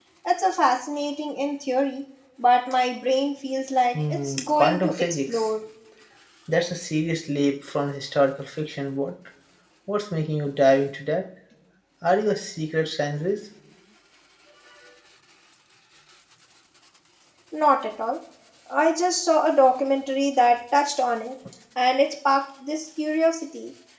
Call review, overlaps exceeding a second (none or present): present